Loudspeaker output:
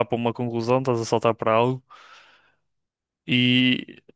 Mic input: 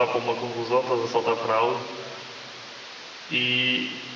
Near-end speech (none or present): none